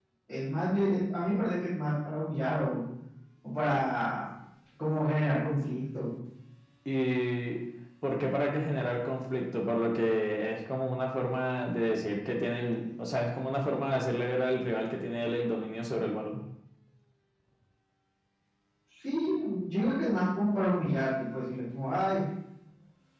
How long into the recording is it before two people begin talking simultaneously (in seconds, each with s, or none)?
none